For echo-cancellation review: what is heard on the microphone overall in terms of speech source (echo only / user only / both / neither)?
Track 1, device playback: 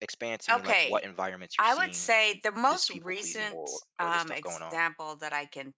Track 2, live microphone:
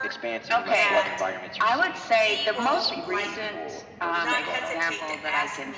both